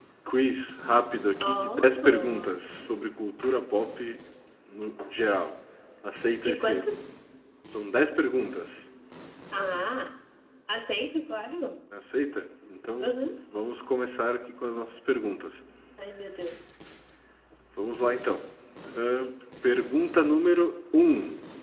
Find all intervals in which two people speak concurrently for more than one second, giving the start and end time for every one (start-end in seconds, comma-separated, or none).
1.4-2.7